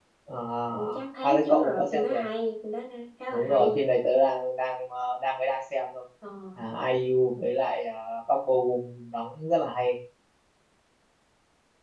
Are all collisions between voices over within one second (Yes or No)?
No